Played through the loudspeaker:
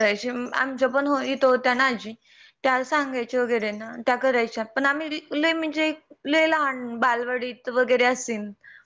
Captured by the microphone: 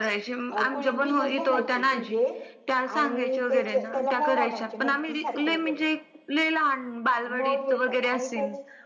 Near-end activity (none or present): present